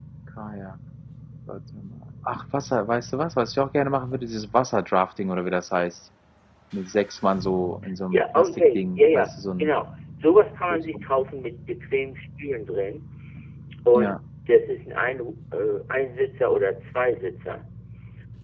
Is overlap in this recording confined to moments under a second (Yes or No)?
No